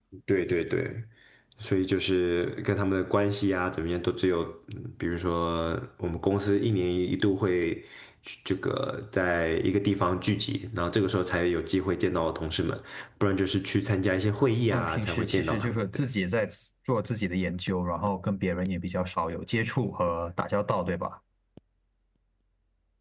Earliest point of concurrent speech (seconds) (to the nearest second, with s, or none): 15 s